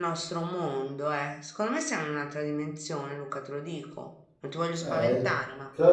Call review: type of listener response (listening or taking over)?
taking over